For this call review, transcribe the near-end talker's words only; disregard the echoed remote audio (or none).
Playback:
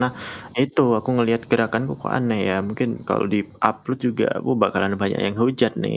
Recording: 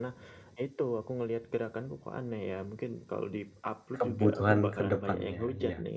kebutuhan kedepannya, iya.